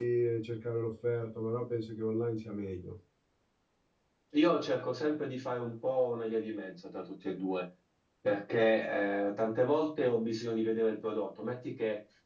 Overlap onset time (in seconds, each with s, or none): none